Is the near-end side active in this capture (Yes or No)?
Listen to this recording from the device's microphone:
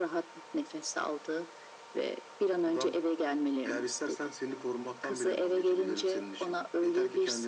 No